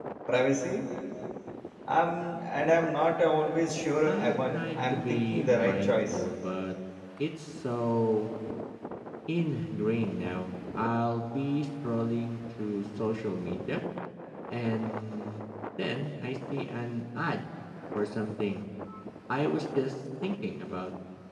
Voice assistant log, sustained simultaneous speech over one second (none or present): present